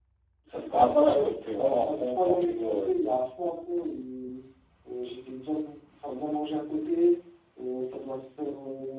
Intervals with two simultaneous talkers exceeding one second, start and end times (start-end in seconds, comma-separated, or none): 0.7-2.9